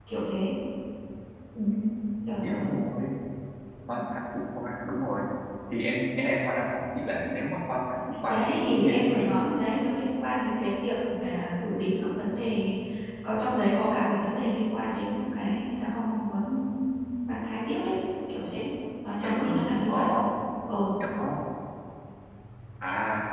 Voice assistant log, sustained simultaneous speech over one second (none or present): present